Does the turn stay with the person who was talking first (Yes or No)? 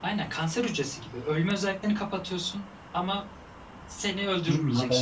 No